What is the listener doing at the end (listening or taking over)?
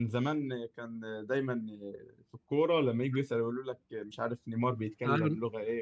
listening